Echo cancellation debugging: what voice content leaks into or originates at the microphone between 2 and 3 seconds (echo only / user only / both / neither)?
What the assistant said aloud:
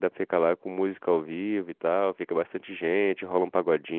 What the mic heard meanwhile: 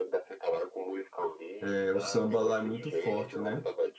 both